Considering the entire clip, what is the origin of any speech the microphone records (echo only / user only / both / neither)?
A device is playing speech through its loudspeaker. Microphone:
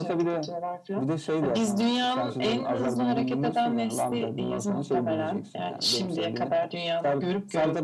echo only